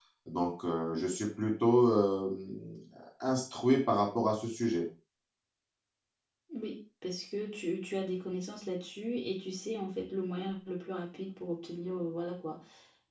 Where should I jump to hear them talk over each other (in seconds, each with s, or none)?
none